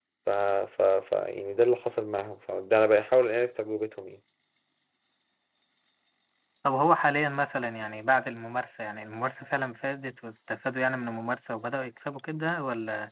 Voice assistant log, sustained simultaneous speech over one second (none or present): none